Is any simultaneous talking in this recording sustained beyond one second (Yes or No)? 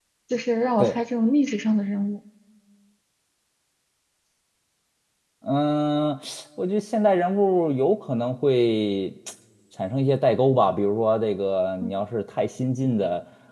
No